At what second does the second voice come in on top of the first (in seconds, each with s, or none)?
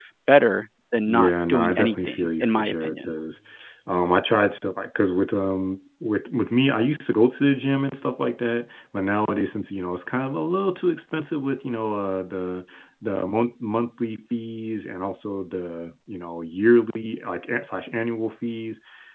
1.1 s